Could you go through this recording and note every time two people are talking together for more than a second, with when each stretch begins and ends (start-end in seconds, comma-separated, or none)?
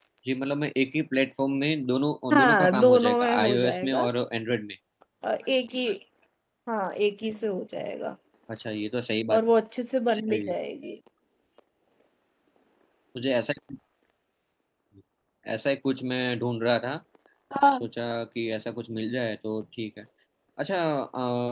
2.3-4.0